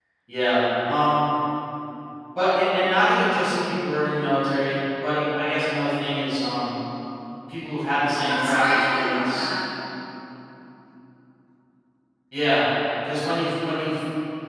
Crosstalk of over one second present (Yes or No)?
Yes